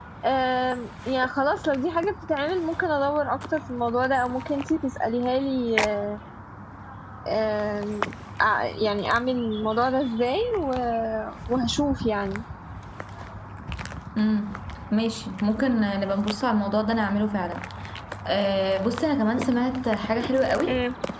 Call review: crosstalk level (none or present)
none